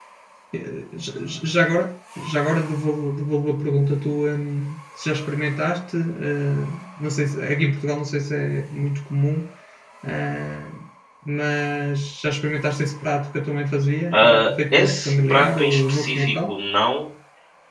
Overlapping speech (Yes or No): Yes